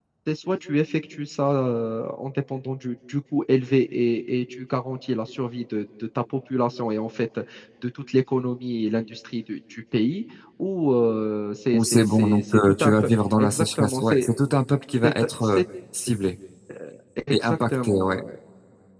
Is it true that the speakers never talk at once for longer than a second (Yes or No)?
No